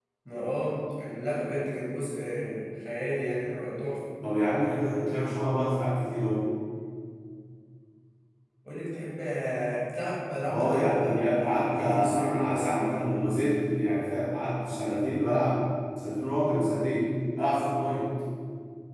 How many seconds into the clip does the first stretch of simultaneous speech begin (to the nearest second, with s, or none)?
10 s